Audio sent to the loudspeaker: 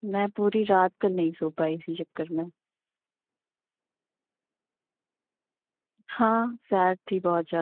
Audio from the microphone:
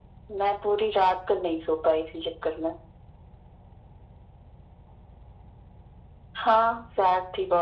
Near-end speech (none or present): none